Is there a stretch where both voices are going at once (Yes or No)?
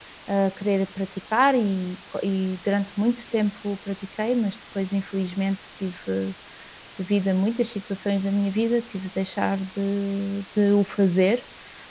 No